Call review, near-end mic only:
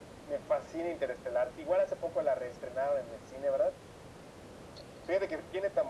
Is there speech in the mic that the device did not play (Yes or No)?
No